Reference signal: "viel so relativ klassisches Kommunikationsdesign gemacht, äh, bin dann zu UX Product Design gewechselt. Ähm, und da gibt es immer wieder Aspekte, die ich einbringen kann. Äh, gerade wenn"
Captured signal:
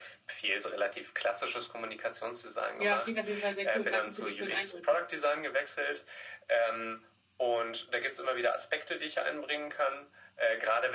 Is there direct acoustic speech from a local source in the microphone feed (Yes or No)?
Yes